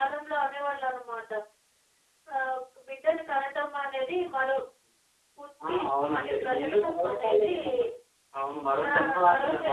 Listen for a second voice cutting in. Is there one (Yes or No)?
Yes